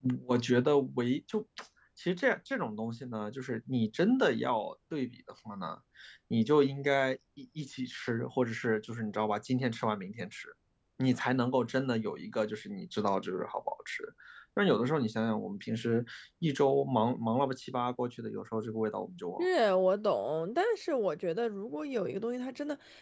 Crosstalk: none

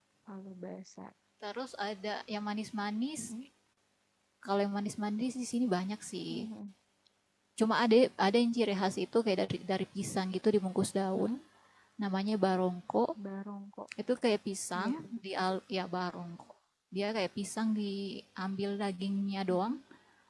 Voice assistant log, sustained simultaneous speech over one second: none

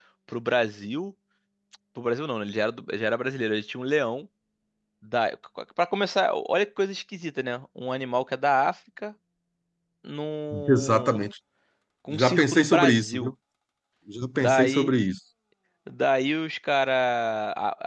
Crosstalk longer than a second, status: present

